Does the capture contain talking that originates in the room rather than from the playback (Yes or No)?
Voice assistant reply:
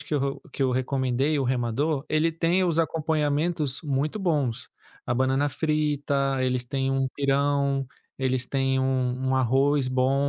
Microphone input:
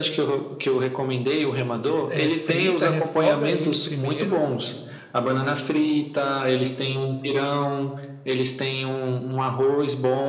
Yes